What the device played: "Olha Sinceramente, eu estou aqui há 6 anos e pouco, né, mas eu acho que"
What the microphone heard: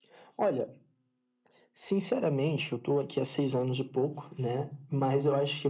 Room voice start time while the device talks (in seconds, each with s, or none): none